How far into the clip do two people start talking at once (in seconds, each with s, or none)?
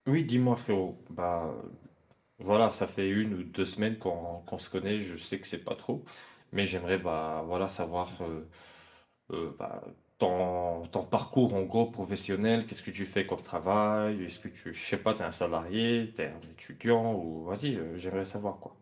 none